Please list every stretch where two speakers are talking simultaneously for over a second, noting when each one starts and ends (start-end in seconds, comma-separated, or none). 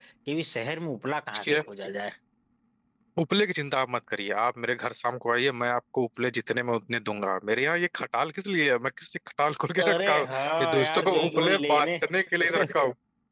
9.8-11.9